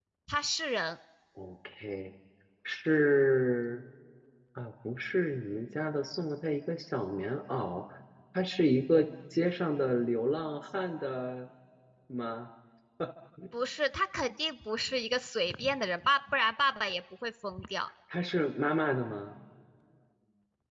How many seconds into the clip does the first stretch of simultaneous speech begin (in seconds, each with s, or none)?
none